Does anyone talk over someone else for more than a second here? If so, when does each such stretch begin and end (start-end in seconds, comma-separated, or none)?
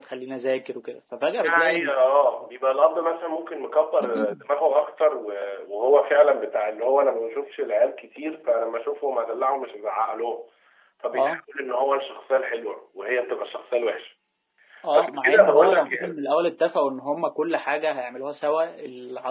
14.9-16.2